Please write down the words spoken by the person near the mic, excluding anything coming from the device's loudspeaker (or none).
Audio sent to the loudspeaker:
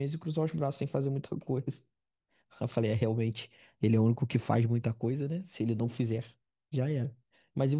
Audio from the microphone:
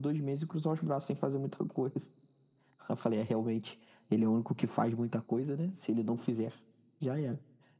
none